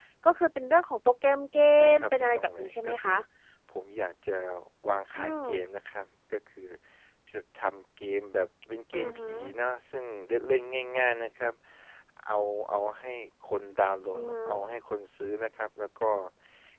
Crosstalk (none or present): present